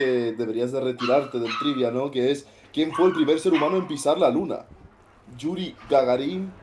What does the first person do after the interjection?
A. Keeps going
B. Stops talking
A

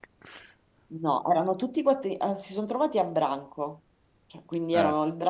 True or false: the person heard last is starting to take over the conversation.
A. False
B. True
A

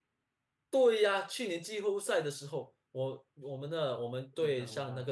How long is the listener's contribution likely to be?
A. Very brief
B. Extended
A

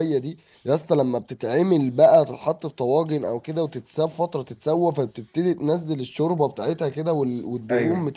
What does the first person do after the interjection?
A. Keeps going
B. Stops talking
A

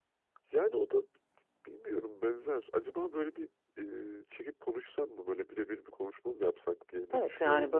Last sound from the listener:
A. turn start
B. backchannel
A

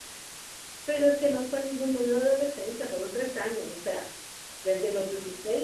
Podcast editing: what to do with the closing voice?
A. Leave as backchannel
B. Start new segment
A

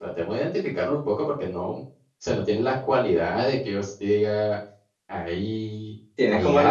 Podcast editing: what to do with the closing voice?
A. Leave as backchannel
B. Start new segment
B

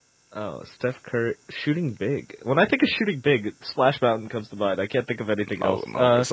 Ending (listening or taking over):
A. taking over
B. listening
A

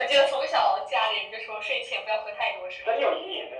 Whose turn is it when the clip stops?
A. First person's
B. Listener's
B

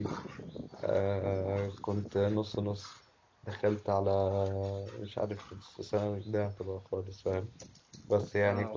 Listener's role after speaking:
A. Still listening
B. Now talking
A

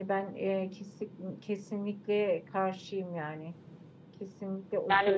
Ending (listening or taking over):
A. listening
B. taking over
A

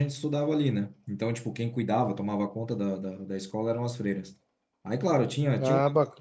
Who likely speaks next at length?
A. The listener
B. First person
B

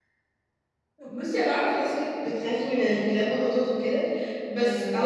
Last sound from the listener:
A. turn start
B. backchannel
B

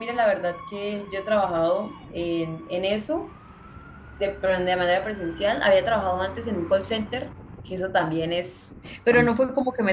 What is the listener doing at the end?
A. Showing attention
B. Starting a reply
A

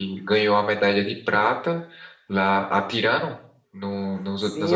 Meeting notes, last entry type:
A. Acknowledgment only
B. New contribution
B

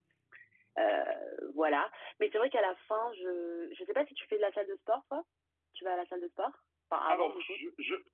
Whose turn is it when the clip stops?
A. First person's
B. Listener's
B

